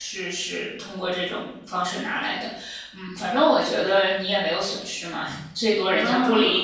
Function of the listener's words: listening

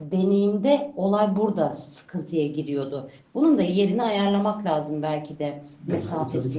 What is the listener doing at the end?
taking over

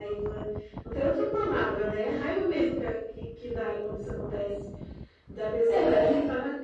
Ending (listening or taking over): listening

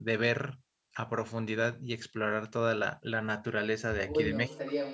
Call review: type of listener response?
taking over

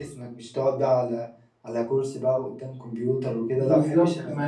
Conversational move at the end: taking over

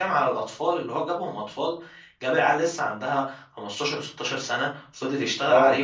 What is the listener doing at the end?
listening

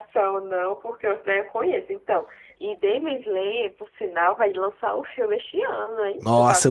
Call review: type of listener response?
taking over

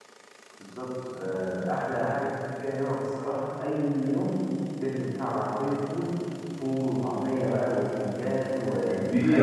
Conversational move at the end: taking over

